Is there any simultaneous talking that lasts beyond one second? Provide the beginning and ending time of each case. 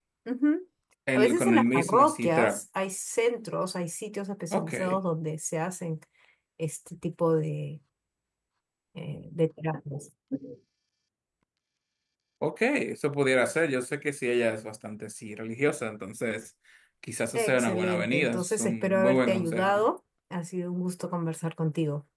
1.1-2.6, 17.4-19.9

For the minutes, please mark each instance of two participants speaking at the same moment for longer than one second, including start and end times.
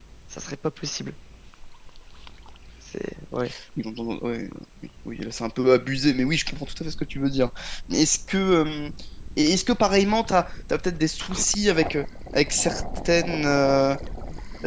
none

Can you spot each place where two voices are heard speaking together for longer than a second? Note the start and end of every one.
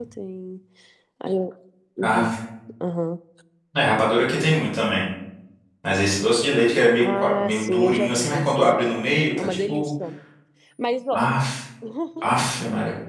7.0-8.9

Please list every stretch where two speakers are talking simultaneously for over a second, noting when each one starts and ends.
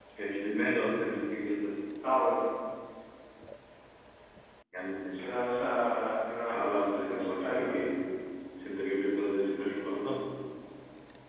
6.5-7.7

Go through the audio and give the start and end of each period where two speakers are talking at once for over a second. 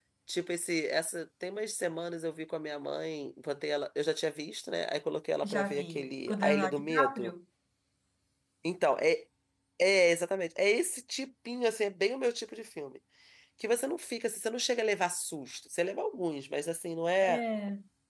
5.4-7.3

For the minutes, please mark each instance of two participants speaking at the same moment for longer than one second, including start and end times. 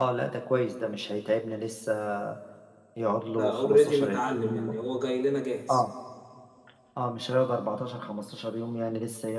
3.3-4.8

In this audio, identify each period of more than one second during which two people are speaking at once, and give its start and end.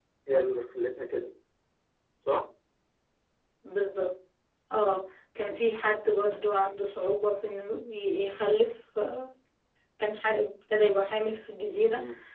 none

